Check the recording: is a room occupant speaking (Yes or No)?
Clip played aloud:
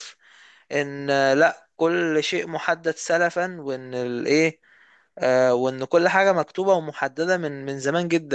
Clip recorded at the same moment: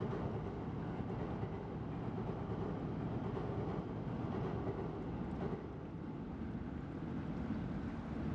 No